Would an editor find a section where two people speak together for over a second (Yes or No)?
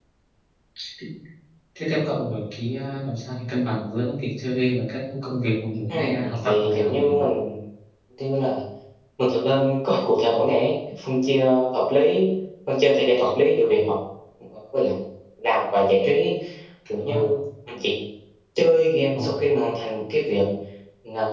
Yes